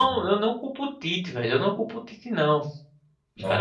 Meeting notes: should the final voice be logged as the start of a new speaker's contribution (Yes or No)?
No